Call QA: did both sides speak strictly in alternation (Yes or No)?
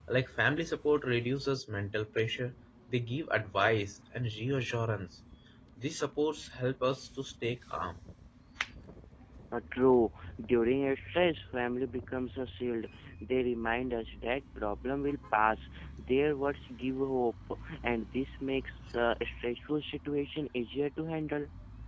Yes